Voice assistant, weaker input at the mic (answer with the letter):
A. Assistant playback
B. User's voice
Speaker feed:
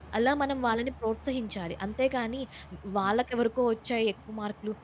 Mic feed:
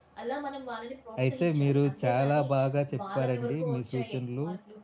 A